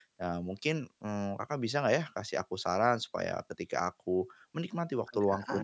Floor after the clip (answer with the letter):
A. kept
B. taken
A